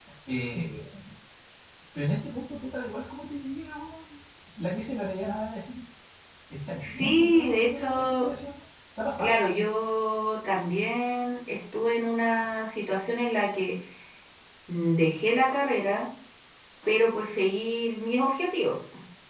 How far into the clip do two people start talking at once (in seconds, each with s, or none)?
6.8 s